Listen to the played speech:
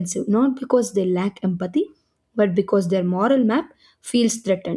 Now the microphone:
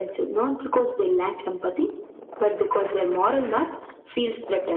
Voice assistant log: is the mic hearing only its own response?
Yes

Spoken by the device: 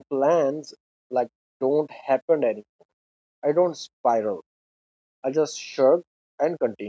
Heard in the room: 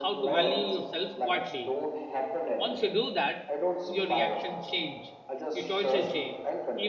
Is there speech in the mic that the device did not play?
Yes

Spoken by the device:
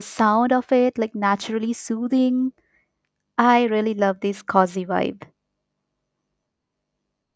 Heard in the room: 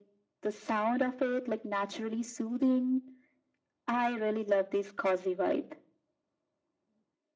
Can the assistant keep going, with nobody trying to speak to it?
Yes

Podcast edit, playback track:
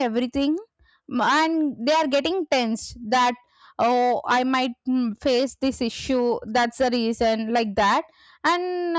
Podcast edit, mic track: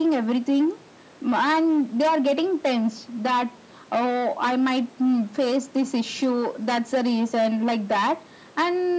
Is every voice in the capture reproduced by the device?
Yes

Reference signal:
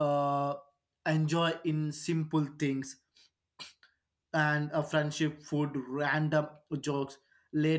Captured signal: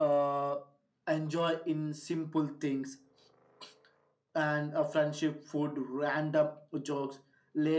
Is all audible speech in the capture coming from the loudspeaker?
Yes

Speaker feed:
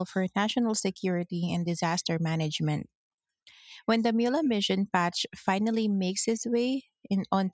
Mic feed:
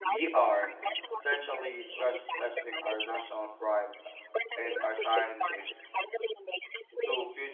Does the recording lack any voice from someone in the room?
No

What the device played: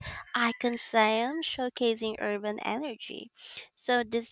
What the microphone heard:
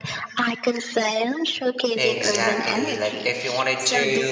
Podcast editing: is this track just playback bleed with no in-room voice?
No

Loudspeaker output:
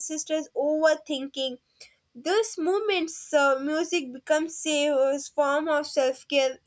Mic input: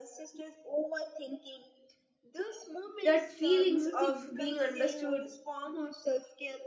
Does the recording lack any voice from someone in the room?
No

